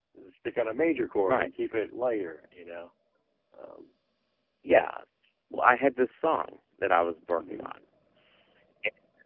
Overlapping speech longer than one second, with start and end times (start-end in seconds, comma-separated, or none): none